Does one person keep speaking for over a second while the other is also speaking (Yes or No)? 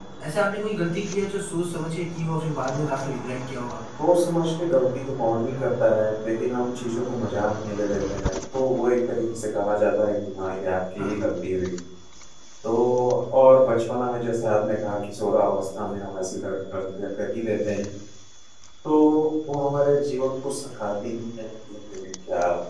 No